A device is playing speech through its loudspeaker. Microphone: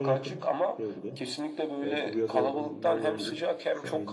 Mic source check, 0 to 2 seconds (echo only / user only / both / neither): both